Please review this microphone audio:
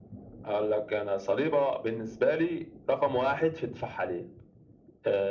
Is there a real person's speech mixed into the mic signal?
No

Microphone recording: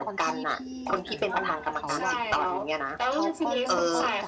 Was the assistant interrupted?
Yes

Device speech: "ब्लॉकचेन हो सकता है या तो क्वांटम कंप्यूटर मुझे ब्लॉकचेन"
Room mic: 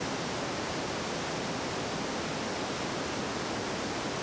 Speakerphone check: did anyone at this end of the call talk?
No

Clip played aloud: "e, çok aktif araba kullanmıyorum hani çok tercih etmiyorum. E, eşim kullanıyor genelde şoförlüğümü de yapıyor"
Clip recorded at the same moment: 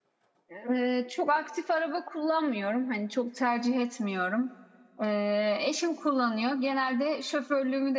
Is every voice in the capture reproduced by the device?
Yes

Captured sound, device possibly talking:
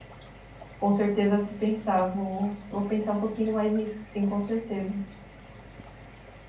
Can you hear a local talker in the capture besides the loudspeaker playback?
Yes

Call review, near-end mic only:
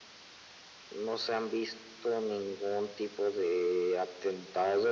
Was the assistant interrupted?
No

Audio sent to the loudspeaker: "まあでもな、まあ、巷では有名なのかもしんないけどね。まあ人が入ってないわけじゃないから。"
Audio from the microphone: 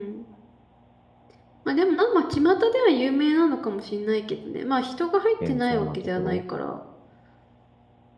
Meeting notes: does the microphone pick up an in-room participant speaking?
Yes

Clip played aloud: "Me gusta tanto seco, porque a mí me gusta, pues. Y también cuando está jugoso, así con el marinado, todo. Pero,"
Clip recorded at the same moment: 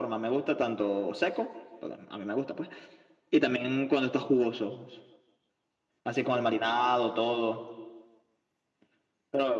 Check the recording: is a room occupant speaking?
No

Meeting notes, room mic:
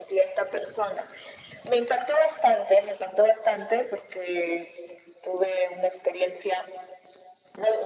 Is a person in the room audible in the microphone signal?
No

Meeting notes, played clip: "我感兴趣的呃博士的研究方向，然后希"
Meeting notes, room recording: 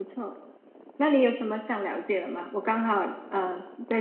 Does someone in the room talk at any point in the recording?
Yes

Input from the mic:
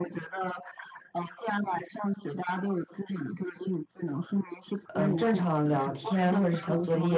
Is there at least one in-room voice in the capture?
Yes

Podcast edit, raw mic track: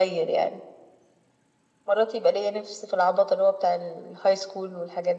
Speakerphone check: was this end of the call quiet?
Yes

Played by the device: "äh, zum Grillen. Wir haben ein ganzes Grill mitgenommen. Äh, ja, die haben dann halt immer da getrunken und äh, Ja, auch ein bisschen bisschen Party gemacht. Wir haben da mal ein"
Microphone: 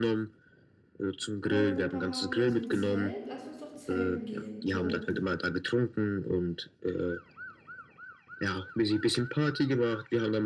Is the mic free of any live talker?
No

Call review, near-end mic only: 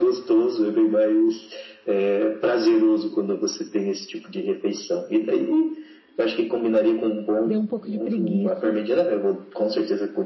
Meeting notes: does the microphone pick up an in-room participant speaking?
Yes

